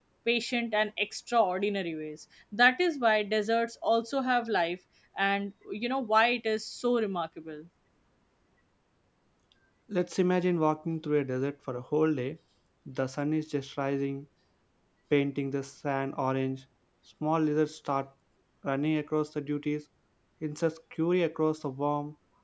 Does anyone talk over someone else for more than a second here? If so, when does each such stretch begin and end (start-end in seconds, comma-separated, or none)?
none